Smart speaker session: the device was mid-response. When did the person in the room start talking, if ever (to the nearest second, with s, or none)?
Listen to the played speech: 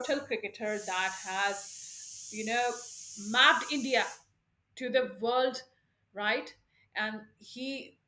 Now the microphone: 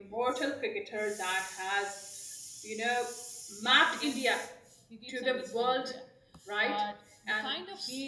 4 s